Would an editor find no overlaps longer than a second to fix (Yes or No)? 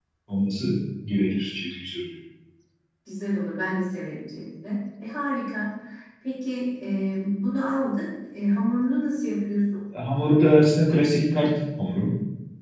Yes